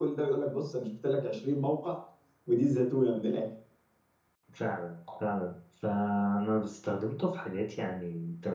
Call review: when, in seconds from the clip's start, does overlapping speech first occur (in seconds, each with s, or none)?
none